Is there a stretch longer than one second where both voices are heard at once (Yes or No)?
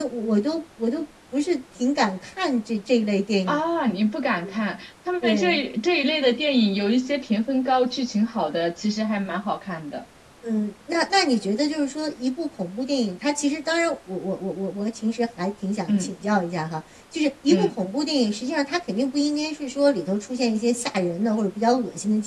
No